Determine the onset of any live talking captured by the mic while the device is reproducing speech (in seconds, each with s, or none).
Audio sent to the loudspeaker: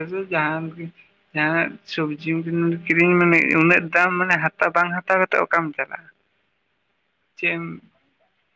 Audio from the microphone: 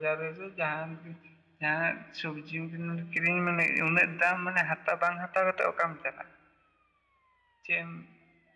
none